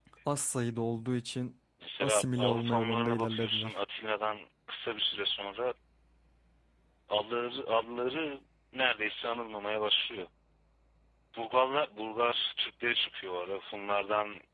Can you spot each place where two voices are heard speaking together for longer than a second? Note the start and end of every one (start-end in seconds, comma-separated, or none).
2.0-3.7